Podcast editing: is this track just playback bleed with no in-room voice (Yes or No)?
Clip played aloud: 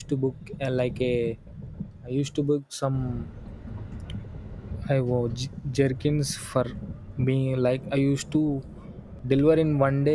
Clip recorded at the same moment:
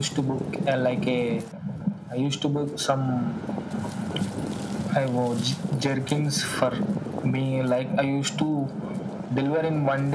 Yes